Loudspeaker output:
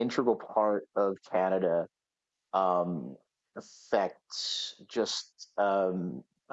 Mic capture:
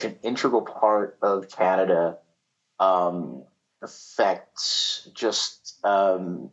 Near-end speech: none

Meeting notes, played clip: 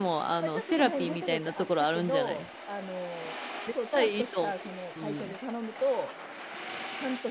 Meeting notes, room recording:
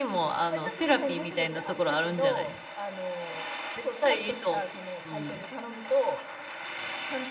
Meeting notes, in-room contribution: none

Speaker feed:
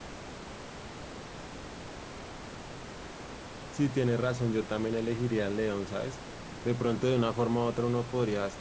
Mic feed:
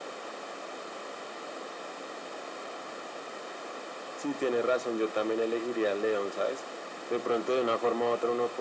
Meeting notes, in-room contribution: none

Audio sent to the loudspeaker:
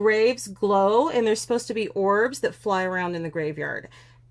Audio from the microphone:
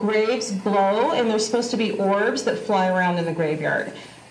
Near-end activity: none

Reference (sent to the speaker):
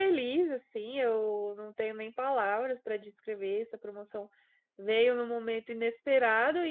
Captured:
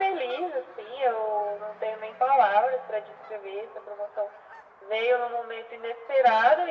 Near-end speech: none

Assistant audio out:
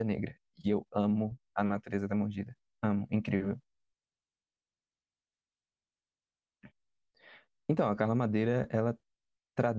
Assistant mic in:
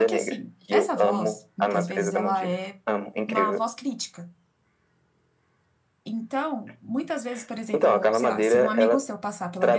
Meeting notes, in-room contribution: present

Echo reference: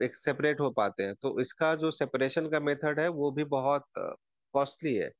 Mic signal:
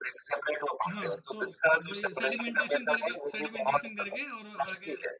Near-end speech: present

